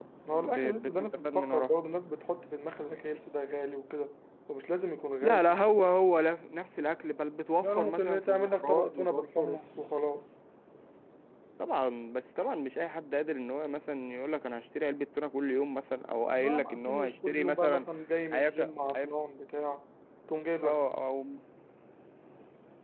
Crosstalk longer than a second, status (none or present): present